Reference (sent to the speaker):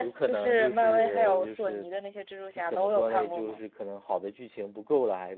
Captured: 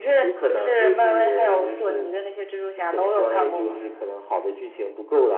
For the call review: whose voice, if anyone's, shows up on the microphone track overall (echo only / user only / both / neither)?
echo only